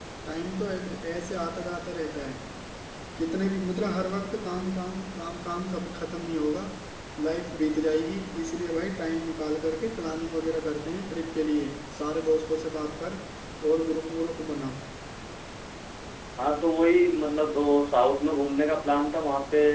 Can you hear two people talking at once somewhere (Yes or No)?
No